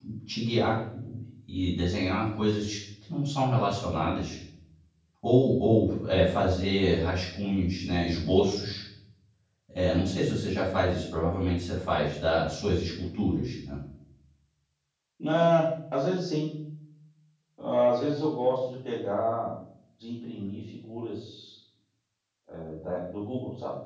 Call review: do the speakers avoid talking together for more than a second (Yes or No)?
Yes